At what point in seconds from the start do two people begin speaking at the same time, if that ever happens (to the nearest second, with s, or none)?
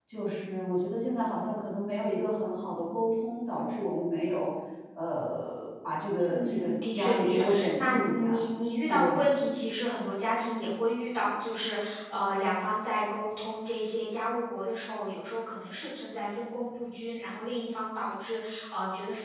6 s